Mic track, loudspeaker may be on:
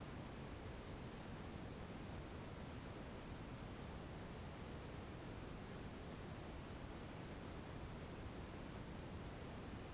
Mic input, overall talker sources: neither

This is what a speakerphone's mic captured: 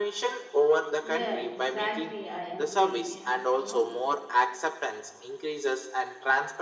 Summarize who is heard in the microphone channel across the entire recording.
both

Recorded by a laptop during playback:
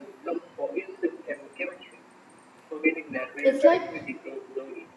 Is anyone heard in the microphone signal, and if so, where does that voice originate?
both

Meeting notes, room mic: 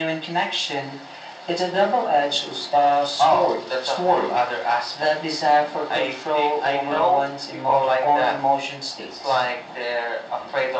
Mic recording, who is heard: echo only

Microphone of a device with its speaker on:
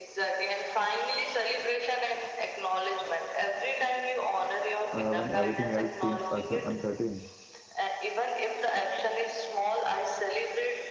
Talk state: both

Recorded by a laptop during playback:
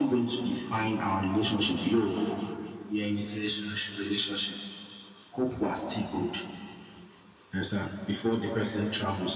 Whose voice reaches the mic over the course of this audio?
echo only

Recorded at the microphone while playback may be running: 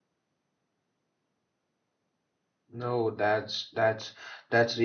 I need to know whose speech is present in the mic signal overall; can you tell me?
user only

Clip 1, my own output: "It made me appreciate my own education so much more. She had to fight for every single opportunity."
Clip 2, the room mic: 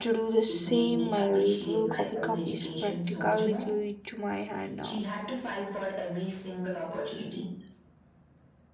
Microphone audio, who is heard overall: both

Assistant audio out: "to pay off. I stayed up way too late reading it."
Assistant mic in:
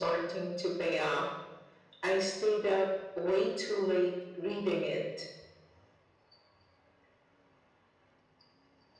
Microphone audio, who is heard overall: echo only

